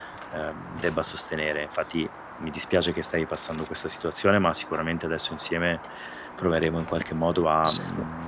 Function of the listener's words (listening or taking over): listening